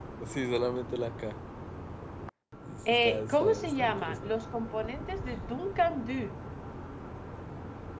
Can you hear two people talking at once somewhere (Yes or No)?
Yes